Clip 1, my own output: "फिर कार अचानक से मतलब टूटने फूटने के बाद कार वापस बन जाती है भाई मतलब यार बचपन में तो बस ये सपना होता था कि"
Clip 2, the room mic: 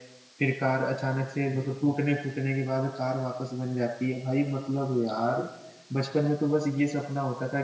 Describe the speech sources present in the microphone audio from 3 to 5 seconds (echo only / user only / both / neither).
echo only